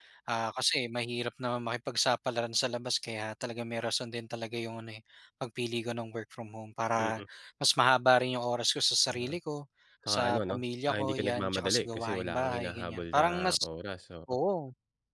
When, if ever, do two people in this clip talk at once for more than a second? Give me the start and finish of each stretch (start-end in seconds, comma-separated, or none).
10.1-13.6